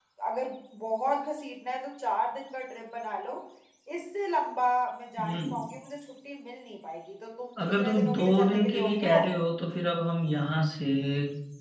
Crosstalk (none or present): present